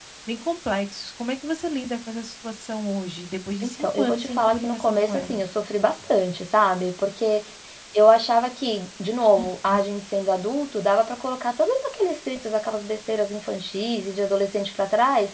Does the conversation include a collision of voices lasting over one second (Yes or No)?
Yes